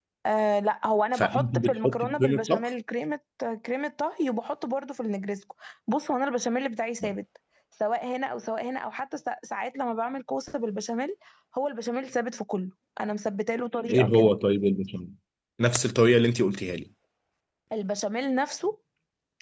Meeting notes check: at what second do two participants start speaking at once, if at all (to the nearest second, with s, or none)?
1 s